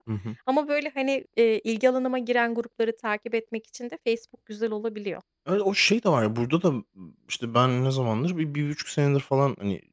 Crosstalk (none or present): none